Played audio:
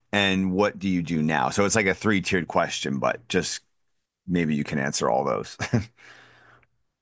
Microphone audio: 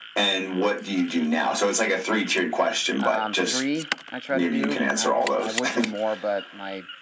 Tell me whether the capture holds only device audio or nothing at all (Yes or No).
No